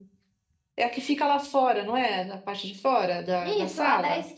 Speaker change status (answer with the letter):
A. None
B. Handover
B